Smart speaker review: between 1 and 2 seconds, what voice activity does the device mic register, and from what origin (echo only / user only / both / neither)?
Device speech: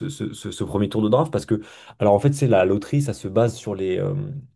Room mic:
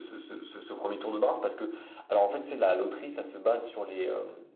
echo only